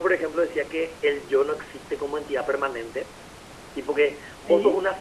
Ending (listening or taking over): listening